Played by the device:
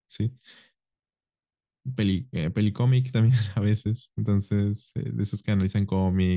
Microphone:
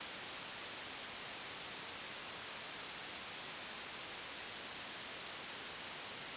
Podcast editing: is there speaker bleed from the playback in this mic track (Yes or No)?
No